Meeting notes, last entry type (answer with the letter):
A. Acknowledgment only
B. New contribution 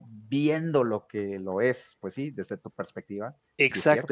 B